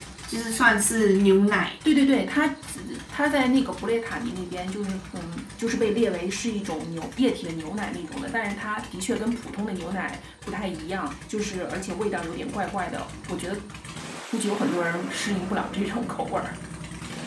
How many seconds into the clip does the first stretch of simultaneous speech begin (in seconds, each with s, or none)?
none